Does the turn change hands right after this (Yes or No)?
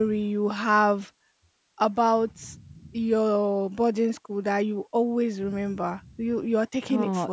Yes